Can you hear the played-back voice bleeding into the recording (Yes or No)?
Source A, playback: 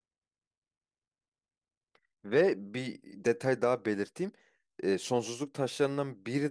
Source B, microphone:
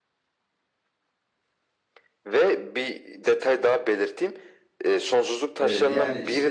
Yes